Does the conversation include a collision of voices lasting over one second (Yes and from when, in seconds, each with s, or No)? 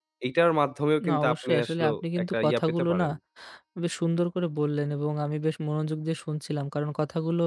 Yes, from 1.1 s